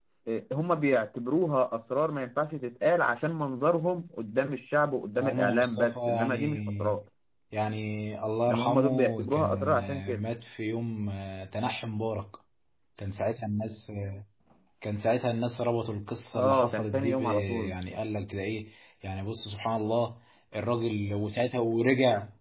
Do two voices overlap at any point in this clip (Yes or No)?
Yes